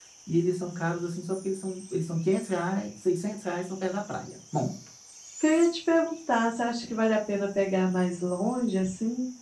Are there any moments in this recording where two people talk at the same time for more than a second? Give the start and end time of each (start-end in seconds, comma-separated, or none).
none